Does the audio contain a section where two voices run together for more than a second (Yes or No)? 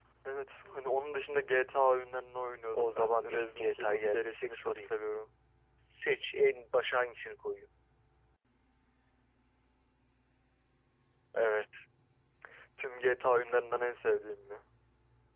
Yes